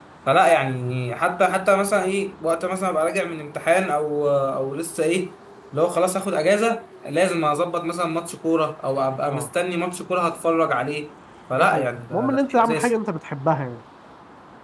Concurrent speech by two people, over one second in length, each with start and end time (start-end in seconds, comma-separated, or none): 11.5-12.9